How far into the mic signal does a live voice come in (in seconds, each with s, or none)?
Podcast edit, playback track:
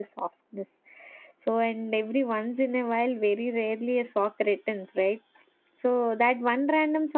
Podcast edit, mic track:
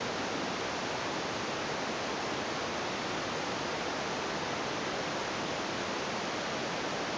none